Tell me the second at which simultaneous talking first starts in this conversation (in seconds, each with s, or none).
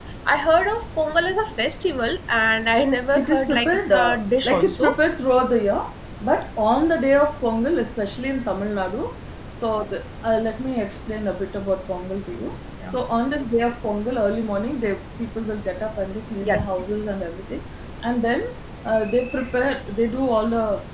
3.1 s